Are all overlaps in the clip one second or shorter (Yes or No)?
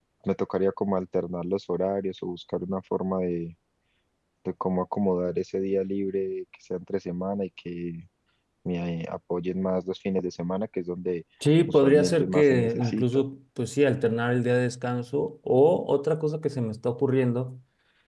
No